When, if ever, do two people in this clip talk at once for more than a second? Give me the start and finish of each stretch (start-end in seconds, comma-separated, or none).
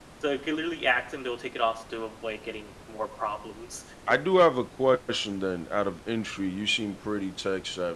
none